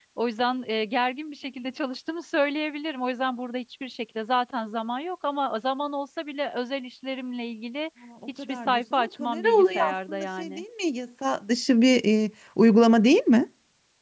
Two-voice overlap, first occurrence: 8 s

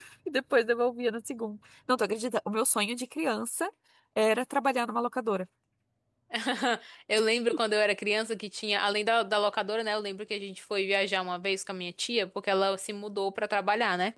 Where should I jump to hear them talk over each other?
none

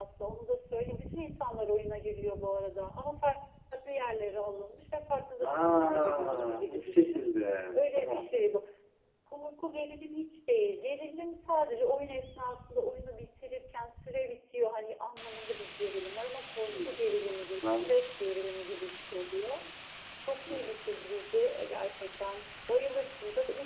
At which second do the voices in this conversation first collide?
5 s

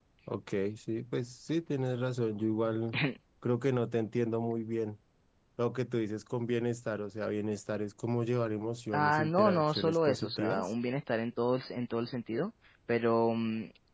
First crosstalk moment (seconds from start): 9 s

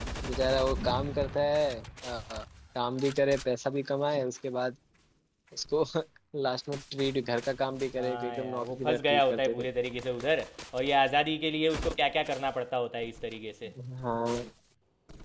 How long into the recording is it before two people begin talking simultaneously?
8 s

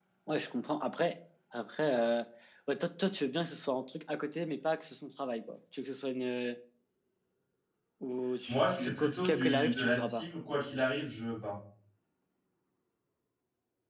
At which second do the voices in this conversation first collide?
8 s

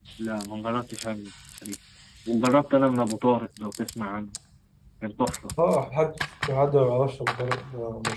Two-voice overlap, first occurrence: none

